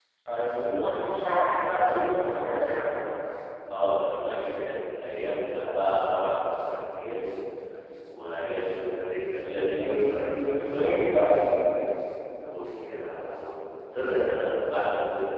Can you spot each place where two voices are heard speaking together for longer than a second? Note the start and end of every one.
9.8-11.5

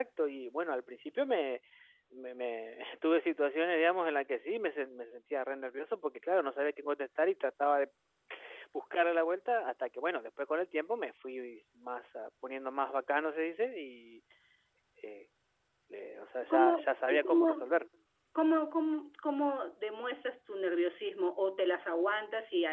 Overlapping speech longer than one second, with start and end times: 16.5-17.7

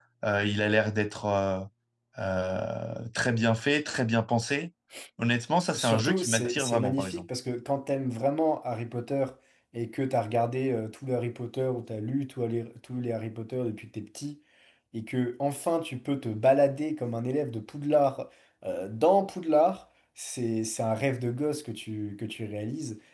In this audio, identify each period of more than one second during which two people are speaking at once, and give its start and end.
5.8-7.3

